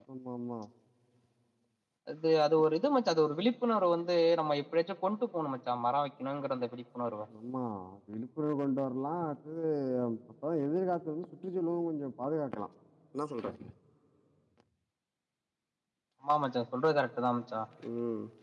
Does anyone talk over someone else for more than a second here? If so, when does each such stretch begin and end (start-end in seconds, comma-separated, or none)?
none